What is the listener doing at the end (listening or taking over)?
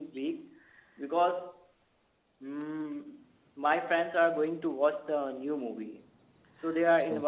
listening